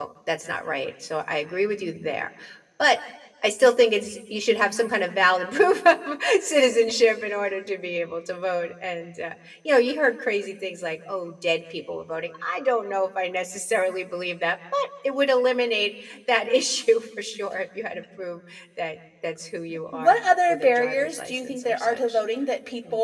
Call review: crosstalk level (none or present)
present